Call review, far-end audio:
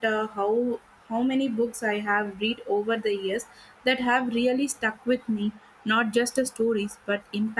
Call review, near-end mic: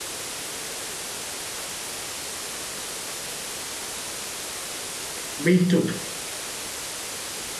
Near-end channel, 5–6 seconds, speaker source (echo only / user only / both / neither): user only